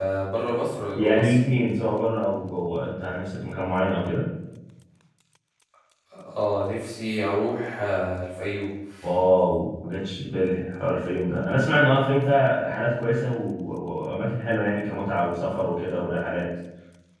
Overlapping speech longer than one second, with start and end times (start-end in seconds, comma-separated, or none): none